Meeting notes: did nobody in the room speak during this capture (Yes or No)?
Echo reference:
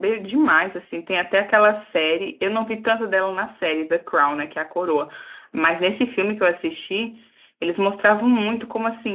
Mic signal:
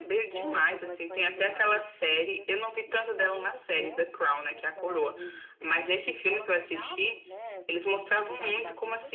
No